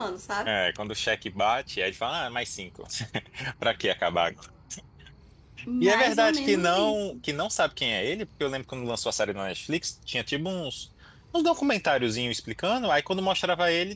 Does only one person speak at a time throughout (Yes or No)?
No